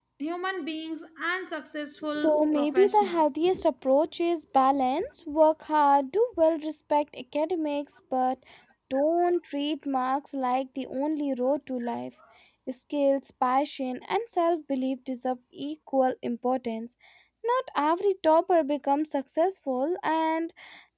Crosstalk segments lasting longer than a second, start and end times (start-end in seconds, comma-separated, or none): 2.1-3.4